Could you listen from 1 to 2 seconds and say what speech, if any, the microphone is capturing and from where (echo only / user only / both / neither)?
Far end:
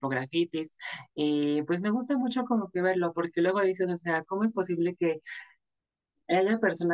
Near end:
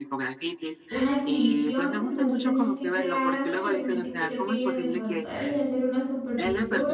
both